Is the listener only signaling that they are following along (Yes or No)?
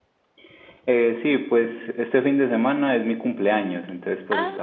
Yes